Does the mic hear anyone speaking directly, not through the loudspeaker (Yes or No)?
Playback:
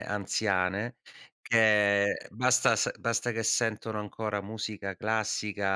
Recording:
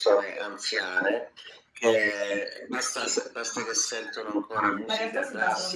Yes